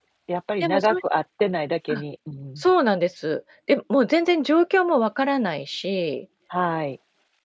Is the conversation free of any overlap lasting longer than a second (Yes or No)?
Yes